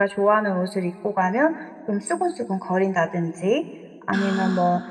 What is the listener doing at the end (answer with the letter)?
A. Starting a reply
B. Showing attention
B